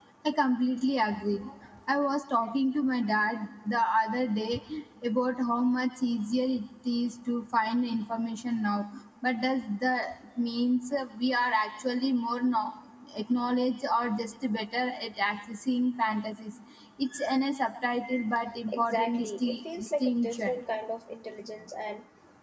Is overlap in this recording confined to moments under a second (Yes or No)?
No